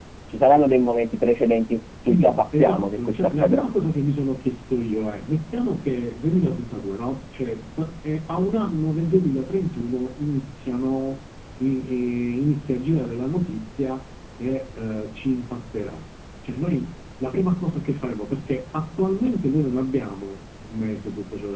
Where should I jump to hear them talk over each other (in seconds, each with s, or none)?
2.0 s